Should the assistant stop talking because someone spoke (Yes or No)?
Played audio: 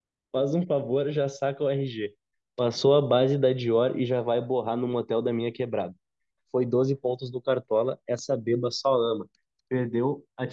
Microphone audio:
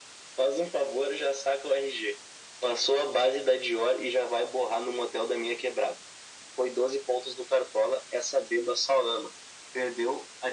No